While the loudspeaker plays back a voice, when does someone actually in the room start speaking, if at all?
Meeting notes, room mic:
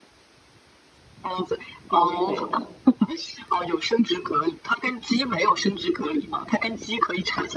1.9 s

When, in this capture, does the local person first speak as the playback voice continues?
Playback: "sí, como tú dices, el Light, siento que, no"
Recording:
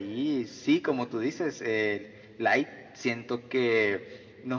none

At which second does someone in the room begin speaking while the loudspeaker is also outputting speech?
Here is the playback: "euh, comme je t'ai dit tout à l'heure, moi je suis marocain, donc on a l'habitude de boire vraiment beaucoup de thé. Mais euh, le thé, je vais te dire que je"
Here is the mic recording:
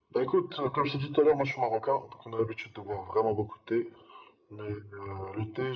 none

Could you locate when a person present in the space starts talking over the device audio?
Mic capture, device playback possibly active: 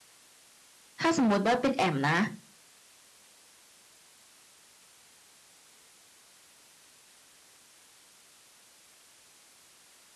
1.0 s

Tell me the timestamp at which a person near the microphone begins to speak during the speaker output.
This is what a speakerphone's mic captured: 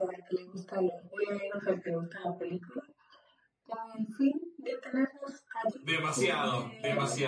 5.8 s

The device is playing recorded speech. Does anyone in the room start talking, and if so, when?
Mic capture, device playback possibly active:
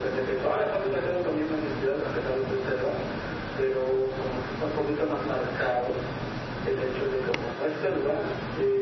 none

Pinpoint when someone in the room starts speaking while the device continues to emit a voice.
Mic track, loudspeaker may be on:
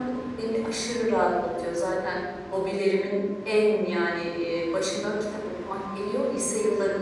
none

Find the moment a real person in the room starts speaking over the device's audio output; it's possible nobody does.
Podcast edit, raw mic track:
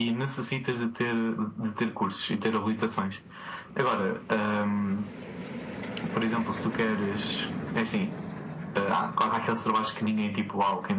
none

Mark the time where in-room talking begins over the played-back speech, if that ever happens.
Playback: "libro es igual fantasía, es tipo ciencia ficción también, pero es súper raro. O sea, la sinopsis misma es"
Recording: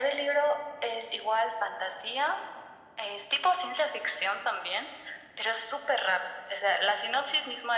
none

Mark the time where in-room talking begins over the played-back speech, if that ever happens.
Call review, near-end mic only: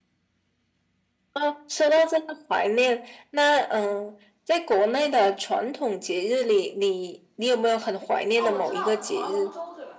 8.4 s

